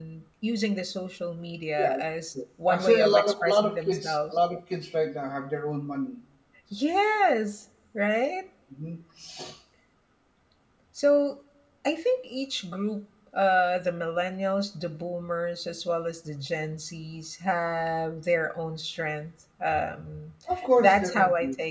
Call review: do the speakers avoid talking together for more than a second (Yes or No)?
No